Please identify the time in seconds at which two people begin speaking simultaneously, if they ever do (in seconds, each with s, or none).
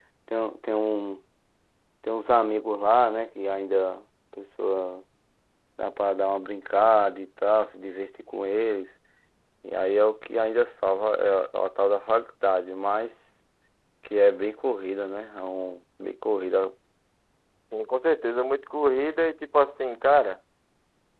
none